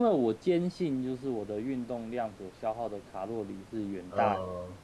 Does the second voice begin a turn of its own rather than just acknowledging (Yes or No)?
No